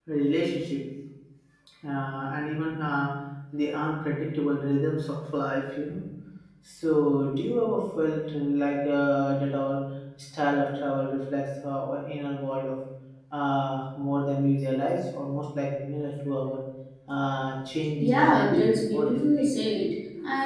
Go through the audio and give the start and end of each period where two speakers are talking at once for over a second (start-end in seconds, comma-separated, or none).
18.0-19.5